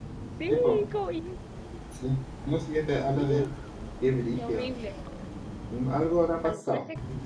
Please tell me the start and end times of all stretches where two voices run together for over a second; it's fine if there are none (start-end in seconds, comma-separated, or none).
none